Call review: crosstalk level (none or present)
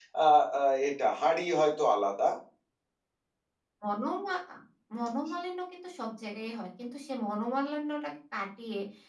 none